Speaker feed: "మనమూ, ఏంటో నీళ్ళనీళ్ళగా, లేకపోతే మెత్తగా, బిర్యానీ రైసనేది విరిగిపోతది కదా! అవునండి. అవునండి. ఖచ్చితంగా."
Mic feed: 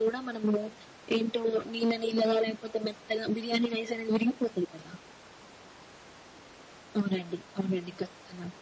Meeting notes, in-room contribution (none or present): none